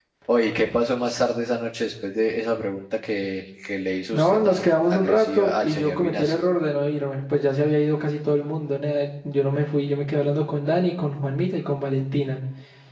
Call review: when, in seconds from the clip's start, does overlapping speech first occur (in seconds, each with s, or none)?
4.1 s